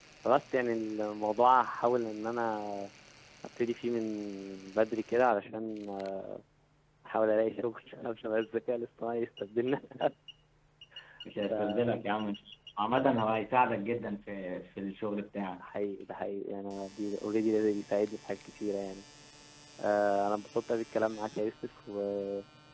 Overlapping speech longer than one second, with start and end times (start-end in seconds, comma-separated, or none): none